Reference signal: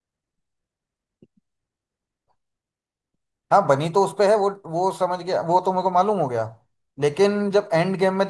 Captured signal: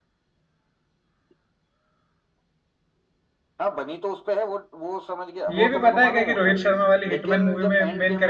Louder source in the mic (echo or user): user